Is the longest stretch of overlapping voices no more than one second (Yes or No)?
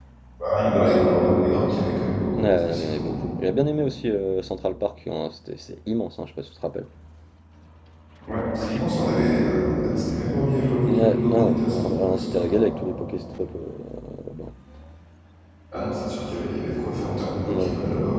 No